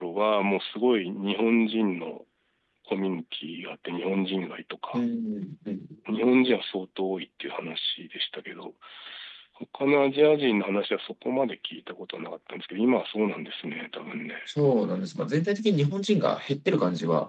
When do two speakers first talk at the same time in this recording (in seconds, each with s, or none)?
none